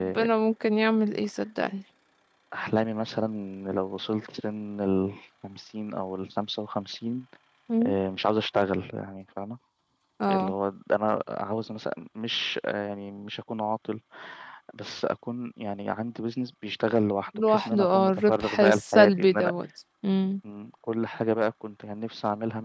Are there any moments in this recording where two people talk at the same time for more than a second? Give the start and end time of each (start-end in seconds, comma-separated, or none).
17.5-19.5